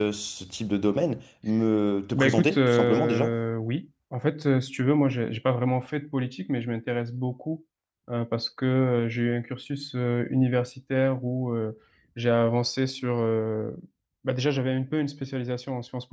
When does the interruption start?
2.1 s

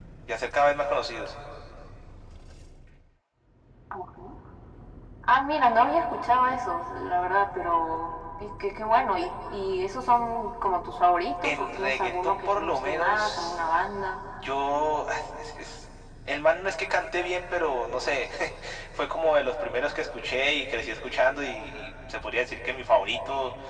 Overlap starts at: 11.4 s

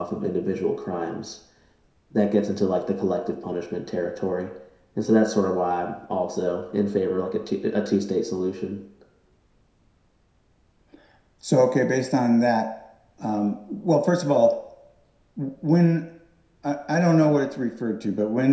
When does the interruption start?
none

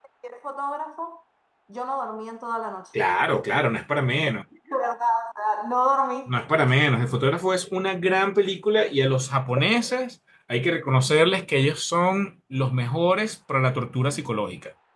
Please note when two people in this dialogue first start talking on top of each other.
none

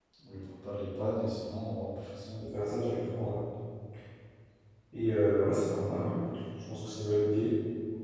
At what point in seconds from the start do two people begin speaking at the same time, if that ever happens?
none

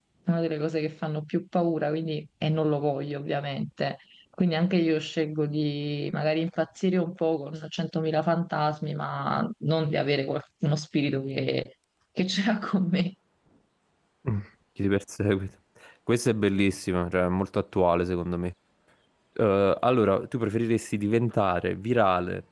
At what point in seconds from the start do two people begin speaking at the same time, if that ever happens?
none

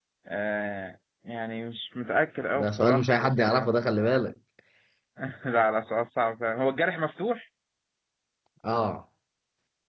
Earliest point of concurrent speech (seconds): 2.5 s

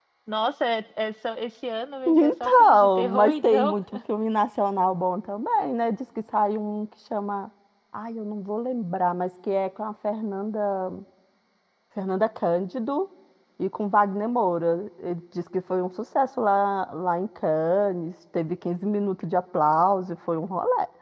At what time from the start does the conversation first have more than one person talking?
2.1 s

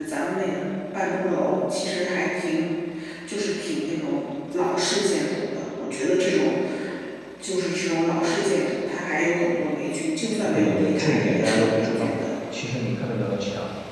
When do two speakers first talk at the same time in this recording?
10.5 s

